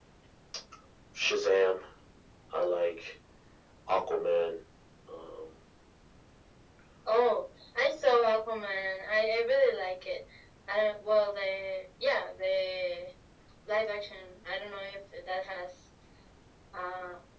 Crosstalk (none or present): none